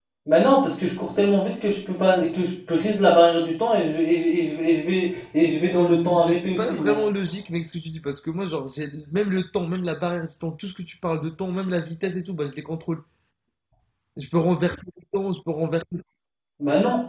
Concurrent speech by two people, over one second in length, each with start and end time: 5.7-7.0

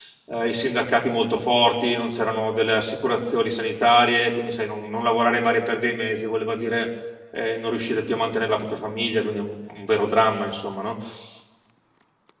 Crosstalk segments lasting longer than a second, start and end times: none

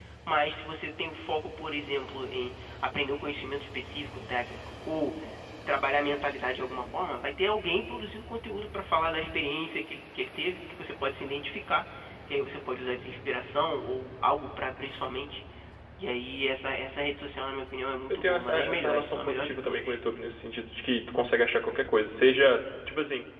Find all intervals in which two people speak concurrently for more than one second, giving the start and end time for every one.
18.1-20.0

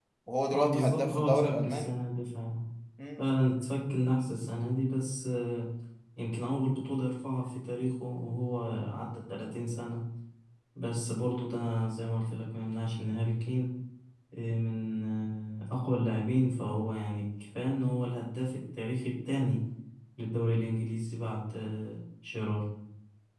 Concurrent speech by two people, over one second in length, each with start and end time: 0.5-1.9

